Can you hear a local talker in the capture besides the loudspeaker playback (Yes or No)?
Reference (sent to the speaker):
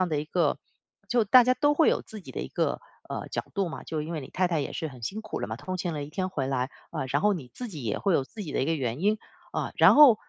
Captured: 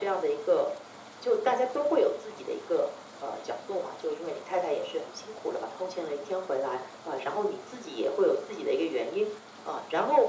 No